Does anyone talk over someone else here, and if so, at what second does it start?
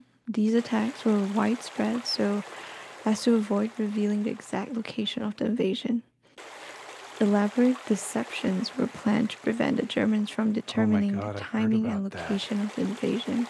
10.7 s

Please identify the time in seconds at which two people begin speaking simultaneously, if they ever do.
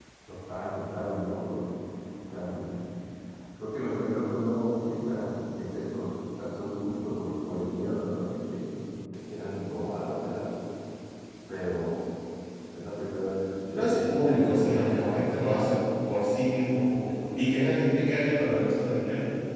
13.7 s

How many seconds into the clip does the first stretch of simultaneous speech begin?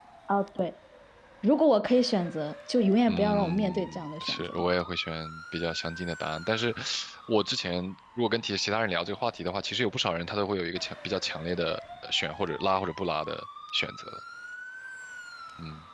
3.1 s

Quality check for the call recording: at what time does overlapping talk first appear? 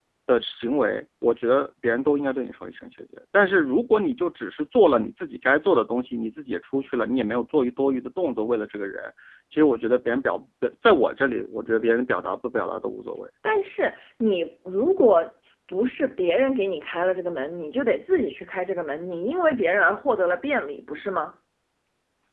none

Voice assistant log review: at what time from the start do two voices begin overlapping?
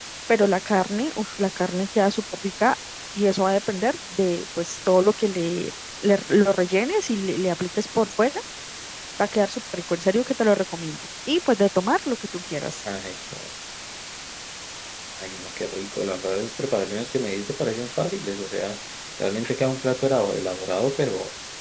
none

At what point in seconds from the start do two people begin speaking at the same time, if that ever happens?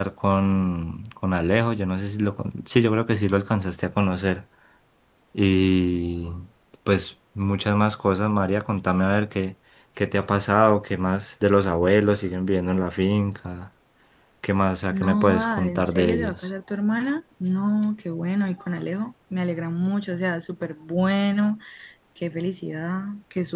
14.9 s

